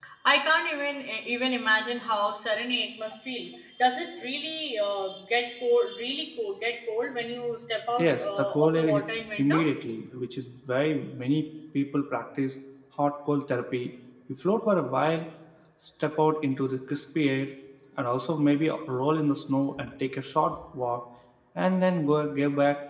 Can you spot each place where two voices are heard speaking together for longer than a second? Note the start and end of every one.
8.0-9.6

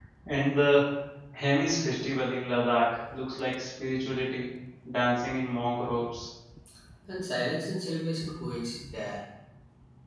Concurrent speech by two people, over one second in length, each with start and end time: none

